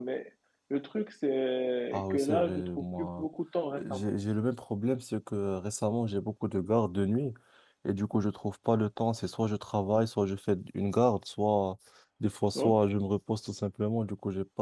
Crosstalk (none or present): present